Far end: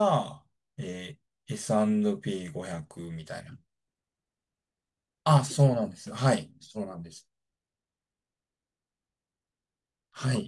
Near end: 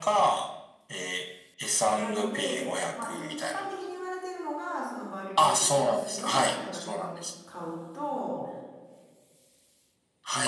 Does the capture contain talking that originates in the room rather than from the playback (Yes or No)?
Yes